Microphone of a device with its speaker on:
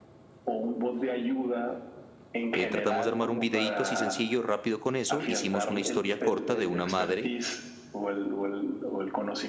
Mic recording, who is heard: both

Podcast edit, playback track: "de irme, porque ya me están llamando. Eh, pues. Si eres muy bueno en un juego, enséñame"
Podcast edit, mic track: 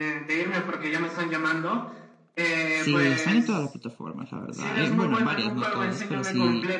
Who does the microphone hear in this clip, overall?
both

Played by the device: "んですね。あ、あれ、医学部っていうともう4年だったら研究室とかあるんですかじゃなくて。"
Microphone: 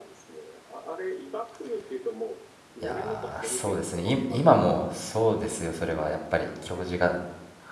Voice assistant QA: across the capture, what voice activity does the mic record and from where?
both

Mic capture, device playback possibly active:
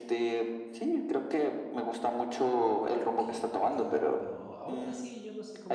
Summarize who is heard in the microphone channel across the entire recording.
both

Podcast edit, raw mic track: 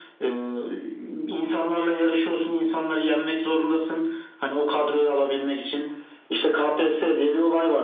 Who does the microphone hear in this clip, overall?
echo only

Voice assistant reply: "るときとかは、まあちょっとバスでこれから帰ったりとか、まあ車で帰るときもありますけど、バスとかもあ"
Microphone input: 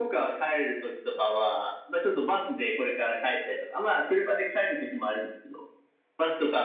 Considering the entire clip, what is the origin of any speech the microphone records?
echo only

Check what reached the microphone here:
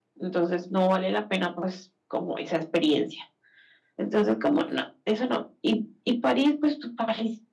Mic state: echo only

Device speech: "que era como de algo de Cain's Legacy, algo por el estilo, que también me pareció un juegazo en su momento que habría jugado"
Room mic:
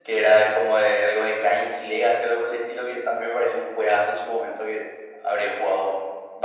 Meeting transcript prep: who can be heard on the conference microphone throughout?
echo only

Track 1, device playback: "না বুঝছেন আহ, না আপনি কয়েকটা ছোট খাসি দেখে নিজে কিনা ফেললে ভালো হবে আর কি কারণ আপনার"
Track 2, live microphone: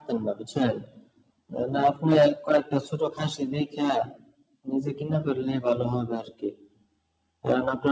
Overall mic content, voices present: echo only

